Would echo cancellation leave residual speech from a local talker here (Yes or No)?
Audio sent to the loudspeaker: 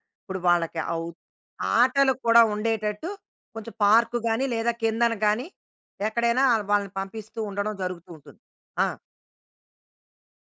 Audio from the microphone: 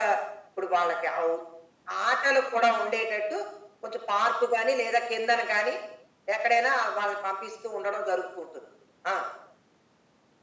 No